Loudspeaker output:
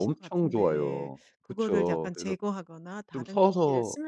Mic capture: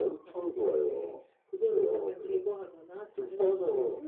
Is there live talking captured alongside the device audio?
No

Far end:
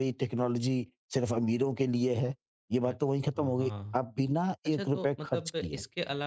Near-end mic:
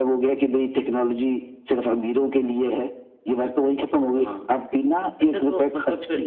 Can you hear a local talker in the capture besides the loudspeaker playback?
No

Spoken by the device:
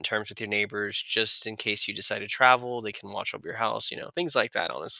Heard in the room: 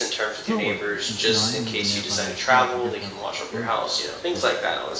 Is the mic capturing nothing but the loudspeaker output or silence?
No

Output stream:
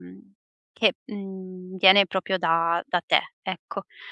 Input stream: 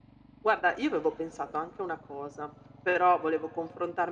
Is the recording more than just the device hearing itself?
Yes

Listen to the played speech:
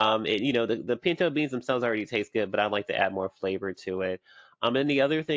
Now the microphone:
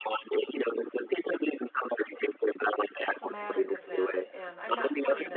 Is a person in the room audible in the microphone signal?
Yes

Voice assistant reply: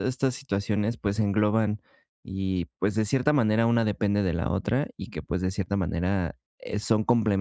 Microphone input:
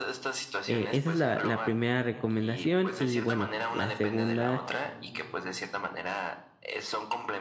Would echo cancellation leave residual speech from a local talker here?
Yes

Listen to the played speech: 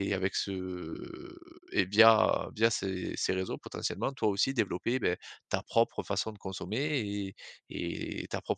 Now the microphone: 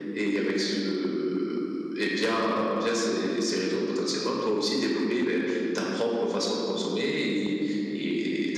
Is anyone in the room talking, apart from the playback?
No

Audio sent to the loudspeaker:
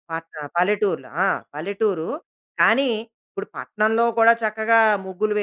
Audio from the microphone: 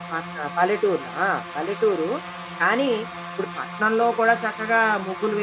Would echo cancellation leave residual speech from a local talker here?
No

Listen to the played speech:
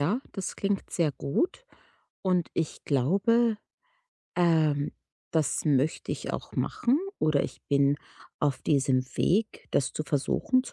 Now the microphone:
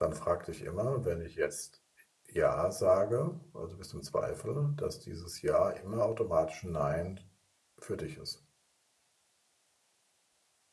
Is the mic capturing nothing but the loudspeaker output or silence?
No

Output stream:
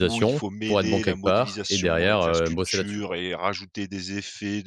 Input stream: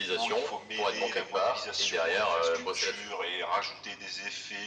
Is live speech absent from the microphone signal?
Yes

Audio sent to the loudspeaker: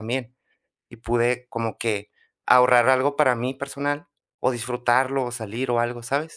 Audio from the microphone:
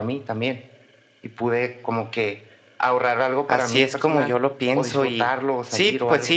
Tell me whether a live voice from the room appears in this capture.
Yes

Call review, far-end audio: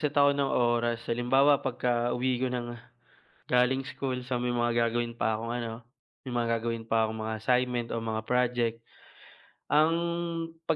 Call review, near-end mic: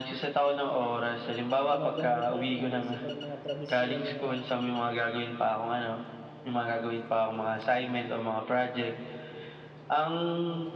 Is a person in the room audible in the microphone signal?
Yes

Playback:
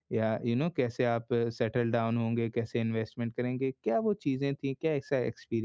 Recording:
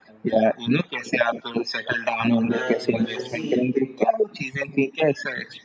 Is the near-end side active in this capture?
Yes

